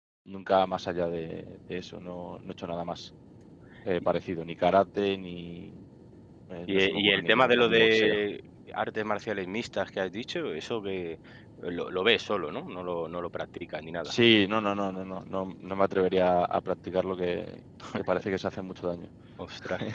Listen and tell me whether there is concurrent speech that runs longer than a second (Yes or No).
Yes